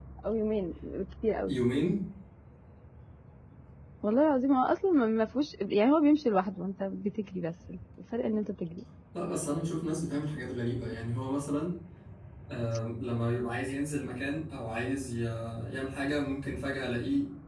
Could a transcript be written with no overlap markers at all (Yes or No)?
Yes